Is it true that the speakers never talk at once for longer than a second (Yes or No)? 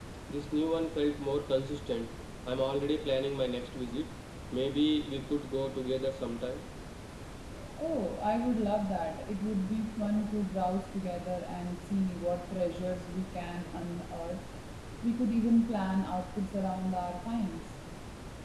Yes